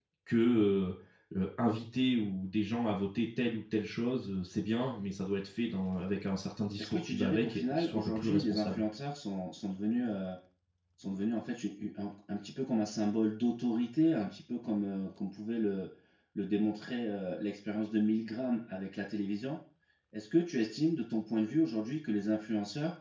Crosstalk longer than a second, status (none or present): present